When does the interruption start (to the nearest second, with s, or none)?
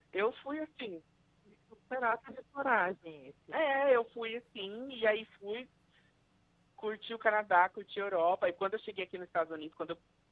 none